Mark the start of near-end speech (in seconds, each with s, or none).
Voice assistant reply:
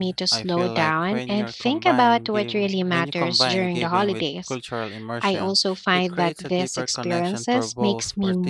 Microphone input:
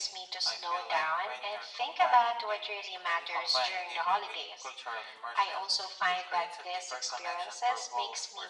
none